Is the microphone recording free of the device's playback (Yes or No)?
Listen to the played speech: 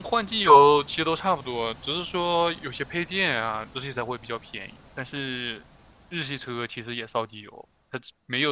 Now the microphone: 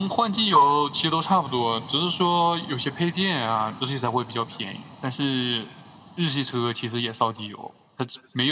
No